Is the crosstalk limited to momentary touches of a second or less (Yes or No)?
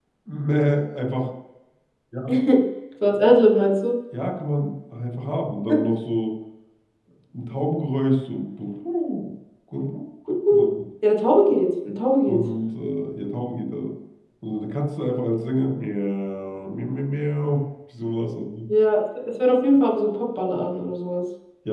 Yes